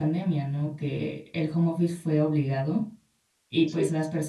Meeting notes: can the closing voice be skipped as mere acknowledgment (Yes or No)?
Yes